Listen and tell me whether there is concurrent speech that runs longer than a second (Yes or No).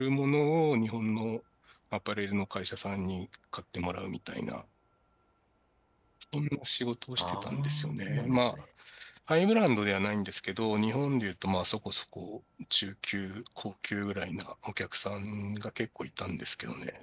Yes